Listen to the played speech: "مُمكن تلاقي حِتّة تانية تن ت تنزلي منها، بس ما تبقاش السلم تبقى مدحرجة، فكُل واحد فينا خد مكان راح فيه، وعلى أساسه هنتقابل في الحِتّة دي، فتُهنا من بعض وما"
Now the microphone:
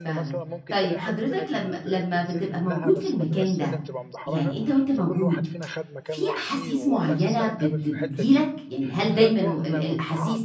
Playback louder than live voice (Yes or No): No